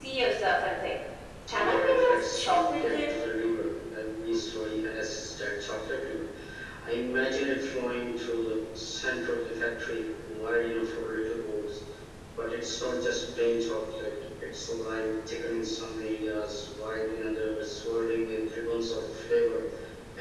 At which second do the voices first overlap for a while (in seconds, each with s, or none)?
1.5 s